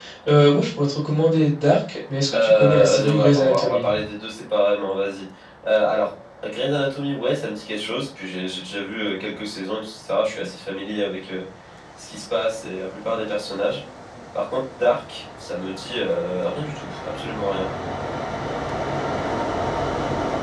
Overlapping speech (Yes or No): Yes